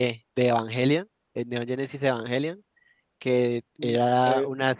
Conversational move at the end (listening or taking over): listening